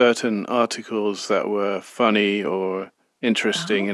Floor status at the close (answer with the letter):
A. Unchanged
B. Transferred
A